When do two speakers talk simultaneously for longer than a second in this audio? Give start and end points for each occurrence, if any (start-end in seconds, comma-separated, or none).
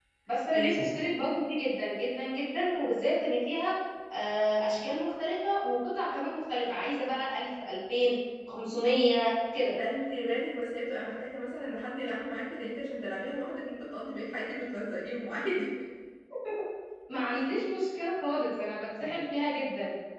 none